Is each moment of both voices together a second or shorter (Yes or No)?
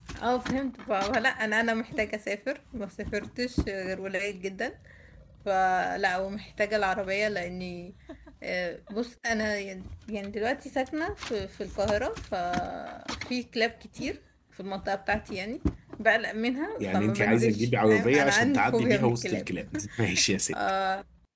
No